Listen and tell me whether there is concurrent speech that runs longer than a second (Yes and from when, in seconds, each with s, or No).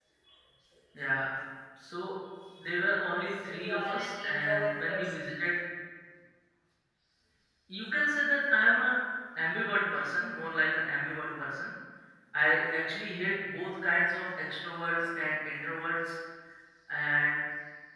Yes, from 3.5 s